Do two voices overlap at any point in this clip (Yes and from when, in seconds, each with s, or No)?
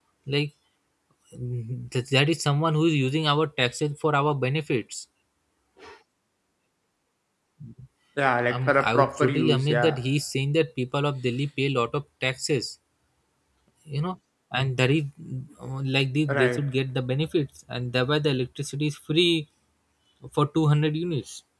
Yes, from 8.5 s